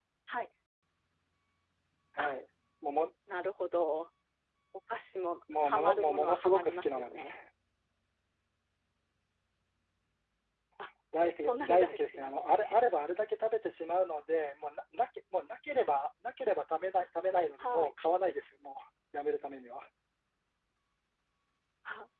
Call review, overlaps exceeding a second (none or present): present